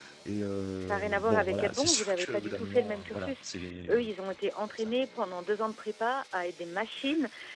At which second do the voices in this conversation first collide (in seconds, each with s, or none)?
0.8 s